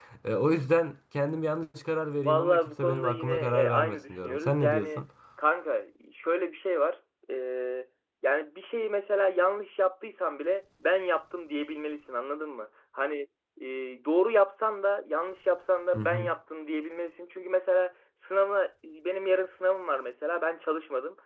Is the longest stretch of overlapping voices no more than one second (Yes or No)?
No